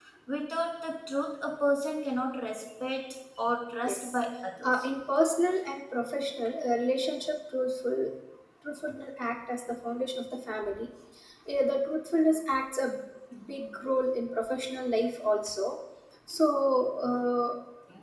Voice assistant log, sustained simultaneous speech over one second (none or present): none